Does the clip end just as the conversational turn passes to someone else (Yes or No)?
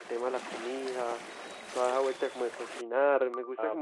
Yes